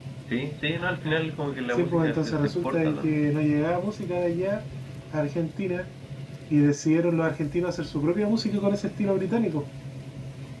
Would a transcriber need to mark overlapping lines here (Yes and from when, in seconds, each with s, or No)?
Yes, from 1.7 s